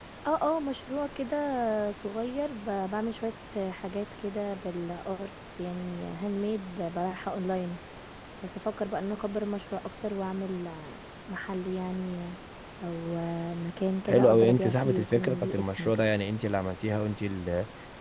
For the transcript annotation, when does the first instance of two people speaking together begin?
14.1 s

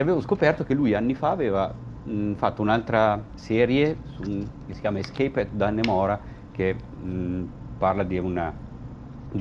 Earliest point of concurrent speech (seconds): none

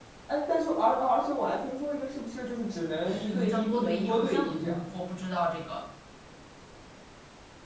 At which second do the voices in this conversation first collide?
3.0 s

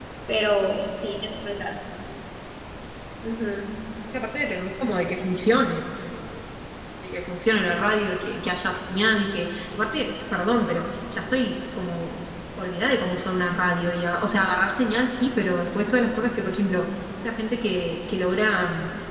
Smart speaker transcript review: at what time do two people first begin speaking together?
none

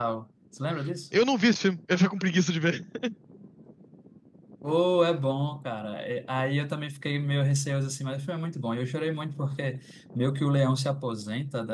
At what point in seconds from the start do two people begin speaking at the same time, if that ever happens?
none

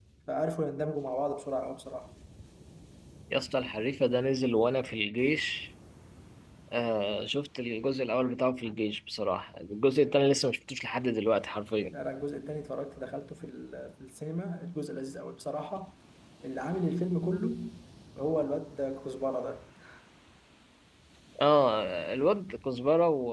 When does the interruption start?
none

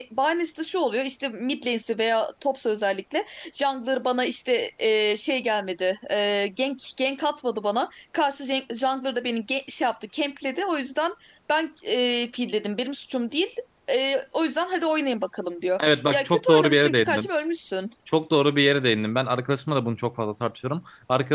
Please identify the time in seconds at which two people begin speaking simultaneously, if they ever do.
15.8 s

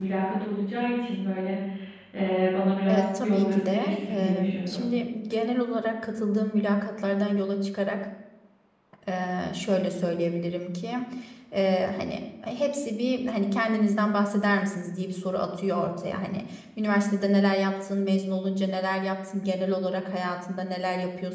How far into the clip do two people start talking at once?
2.9 s

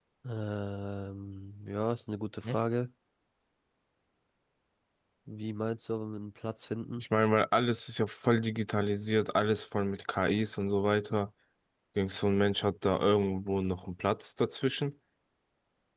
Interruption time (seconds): none

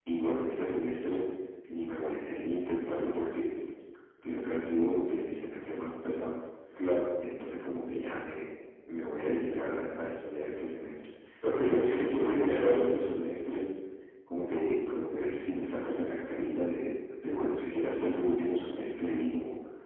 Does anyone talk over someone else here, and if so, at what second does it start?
11.6 s

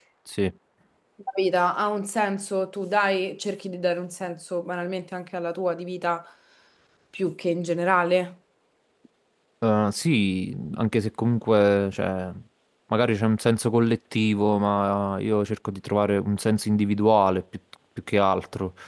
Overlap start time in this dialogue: none

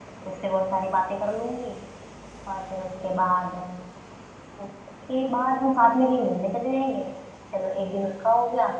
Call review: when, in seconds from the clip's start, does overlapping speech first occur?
none

